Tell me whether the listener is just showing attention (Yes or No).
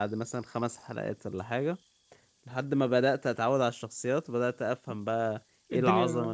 No